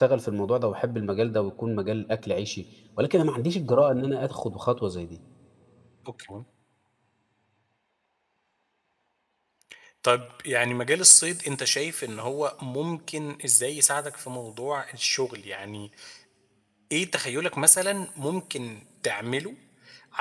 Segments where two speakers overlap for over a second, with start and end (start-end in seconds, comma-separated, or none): none